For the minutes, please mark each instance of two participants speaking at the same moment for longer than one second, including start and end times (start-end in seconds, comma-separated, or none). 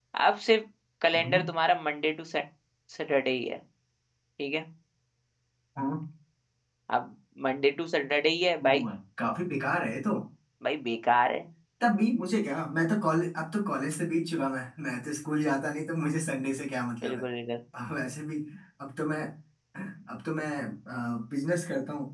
none